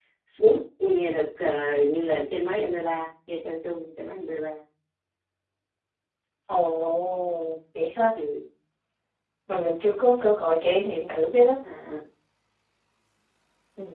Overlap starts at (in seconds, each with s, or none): none